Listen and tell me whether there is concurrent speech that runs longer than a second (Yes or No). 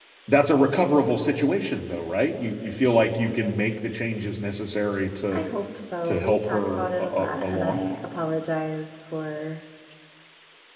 Yes